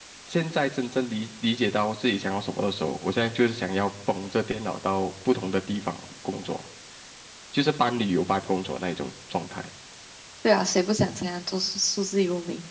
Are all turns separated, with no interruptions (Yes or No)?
Yes